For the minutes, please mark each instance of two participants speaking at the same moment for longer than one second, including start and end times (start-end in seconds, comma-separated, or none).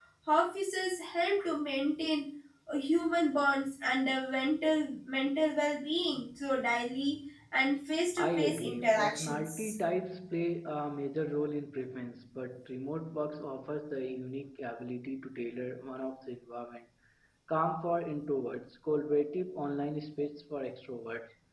8.2-9.7